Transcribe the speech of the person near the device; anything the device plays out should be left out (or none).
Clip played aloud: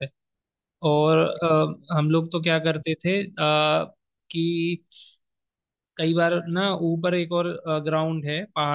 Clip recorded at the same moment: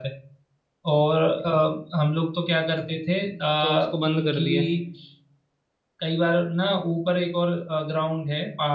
तो उसको बंद कर दिया